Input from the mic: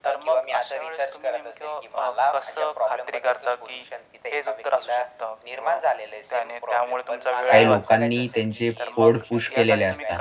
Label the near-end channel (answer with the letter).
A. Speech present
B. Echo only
A